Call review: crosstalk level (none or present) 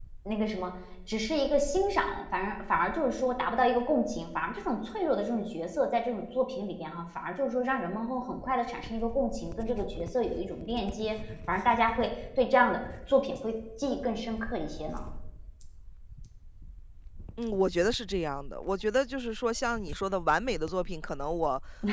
none